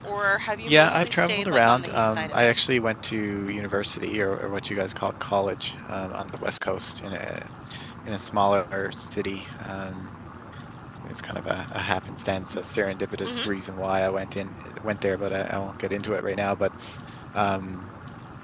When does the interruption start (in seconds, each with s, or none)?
0.7 s